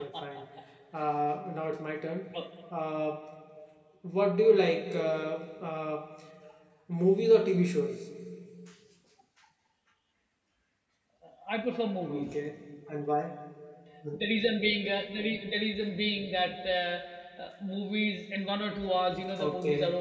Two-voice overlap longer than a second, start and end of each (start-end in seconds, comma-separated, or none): none